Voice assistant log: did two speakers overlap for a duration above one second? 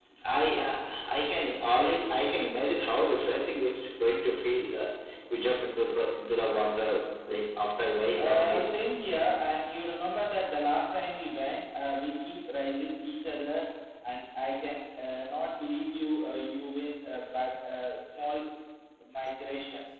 No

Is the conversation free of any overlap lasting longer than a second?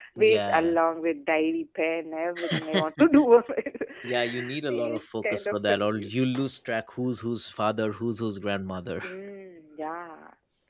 No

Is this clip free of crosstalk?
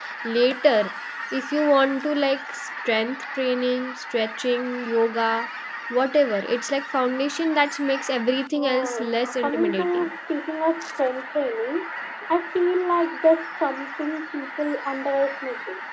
No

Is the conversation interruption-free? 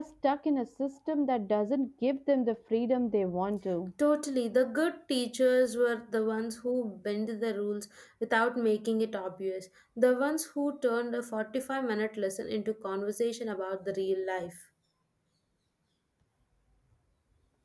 Yes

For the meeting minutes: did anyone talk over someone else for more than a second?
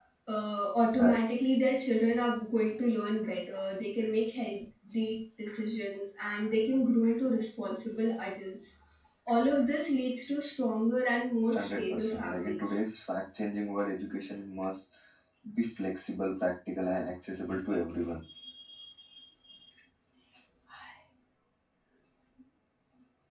Yes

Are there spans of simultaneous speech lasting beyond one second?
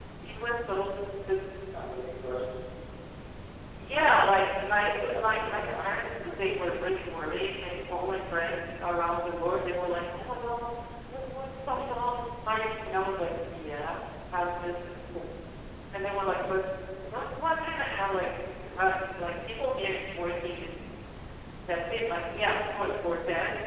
Yes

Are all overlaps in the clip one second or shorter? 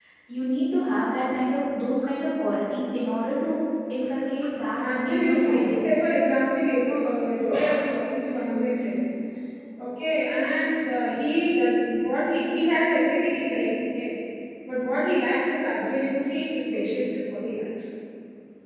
No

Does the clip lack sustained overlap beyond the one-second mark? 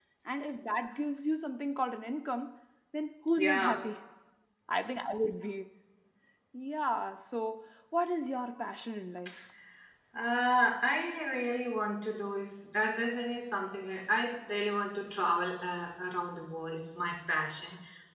Yes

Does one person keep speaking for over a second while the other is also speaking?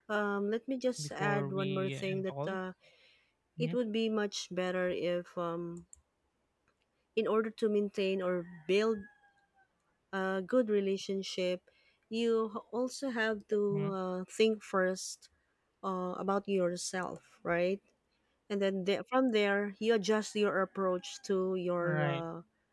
Yes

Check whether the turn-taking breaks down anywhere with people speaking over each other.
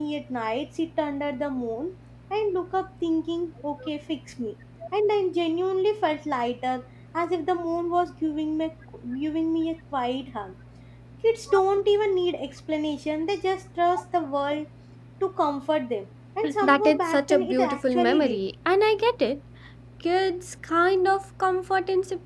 Yes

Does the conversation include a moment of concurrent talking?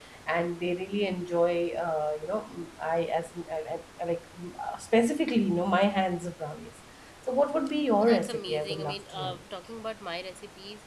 Yes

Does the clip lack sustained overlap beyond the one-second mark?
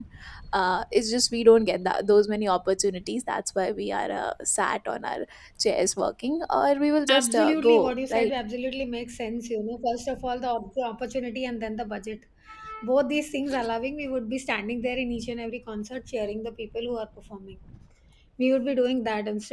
No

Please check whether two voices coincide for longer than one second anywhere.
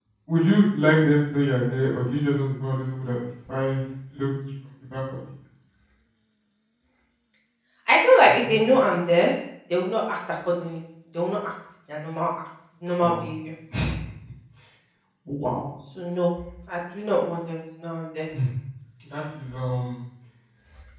No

